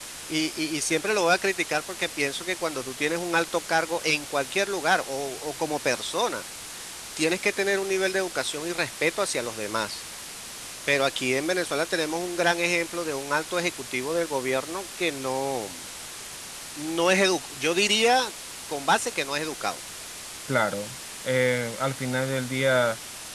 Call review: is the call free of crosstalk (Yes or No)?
Yes